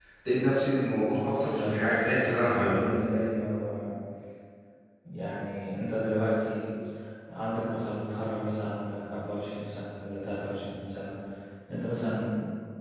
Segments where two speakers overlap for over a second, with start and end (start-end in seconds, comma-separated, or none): 1.2-2.9